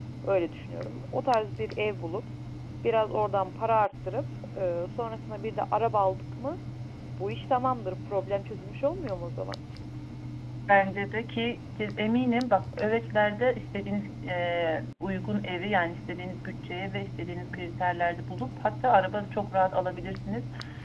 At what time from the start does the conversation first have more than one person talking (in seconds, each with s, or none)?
none